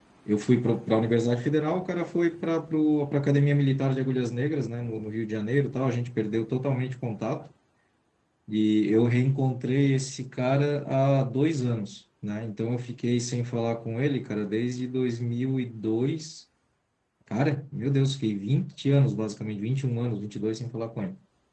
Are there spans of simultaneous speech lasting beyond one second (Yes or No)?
No